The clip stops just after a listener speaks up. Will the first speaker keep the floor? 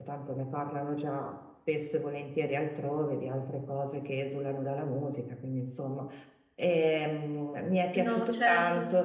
Yes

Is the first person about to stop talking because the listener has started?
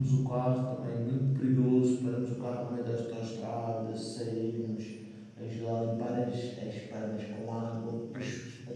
No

